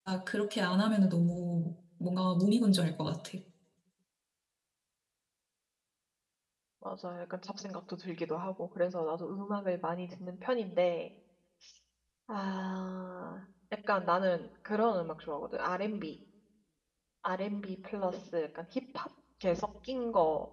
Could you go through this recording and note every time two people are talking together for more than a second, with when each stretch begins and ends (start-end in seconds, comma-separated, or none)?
none